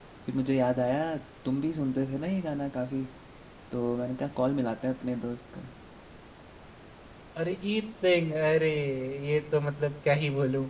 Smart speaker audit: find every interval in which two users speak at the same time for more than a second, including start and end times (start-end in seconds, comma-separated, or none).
none